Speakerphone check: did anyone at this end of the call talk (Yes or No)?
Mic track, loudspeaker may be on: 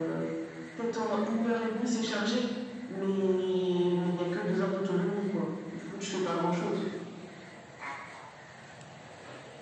No